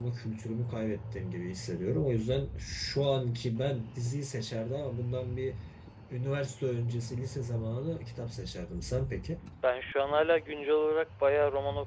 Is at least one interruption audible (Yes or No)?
No